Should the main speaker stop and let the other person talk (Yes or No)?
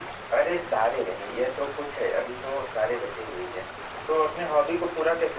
No